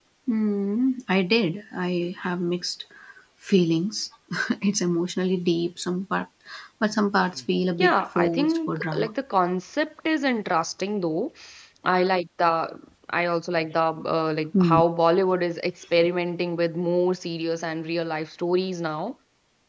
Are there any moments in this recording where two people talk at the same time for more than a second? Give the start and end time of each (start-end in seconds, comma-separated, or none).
7.8-9.1